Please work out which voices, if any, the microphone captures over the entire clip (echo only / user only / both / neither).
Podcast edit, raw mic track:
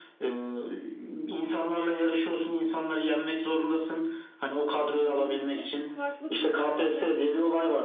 both